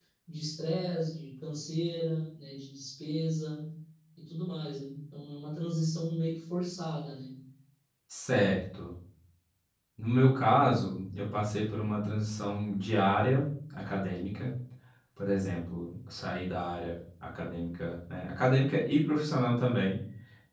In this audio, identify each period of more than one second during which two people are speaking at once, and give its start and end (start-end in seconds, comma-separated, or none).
none